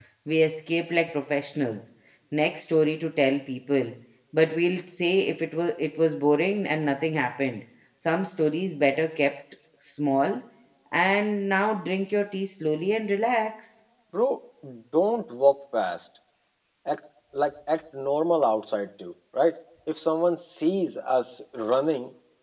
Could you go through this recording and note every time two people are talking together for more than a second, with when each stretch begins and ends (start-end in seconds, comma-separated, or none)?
none